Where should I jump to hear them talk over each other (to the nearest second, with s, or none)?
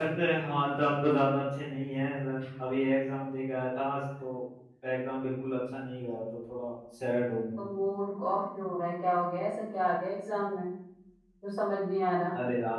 none